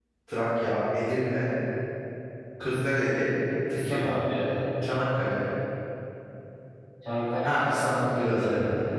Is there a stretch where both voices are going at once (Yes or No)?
Yes